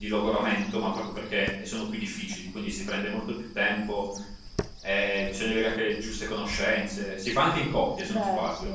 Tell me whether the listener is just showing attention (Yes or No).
Yes